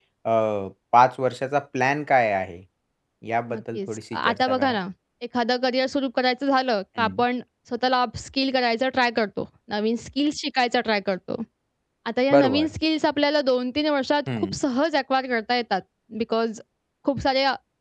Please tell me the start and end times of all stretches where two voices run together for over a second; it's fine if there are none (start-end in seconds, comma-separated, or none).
3.5-4.8